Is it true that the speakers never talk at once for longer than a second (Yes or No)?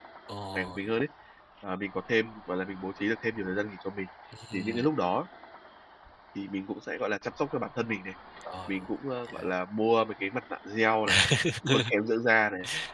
Yes